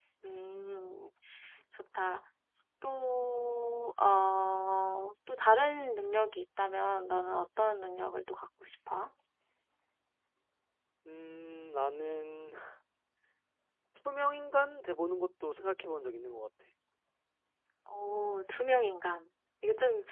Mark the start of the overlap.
none

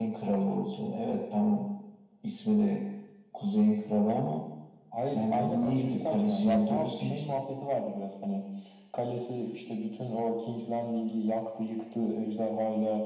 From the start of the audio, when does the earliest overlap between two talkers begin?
5.1 s

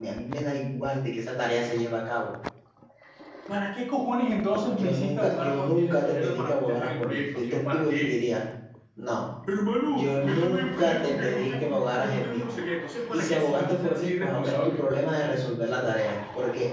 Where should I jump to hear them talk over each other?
4.5 s

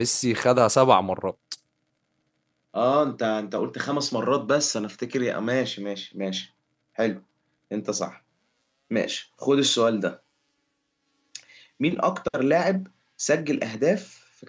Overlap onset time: none

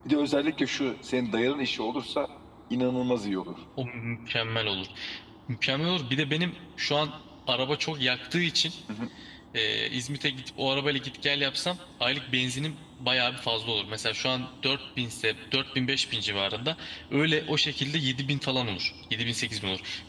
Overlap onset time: none

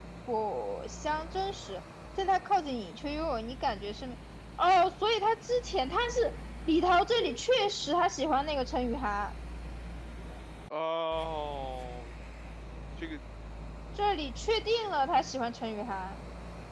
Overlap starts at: none

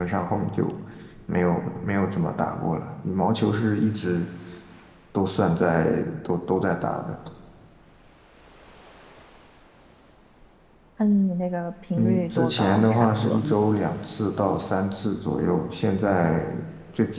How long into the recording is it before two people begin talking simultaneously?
11.9 s

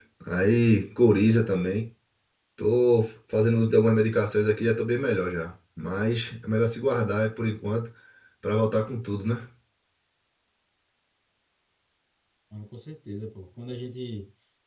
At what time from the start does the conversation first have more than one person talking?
none

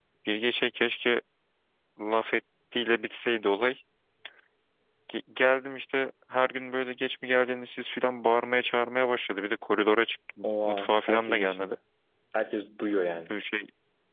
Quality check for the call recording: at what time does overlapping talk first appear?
10.4 s

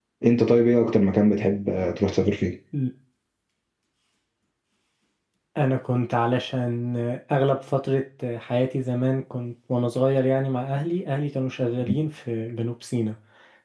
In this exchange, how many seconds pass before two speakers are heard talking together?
none

